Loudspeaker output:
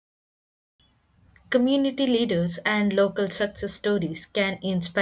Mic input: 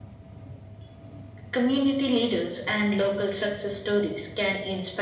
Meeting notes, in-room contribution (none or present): none